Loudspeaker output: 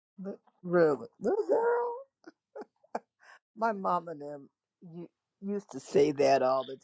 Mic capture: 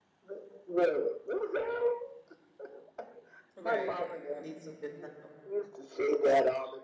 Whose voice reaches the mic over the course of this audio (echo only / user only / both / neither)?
both